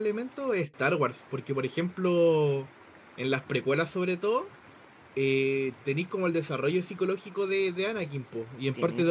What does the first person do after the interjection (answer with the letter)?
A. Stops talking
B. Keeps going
B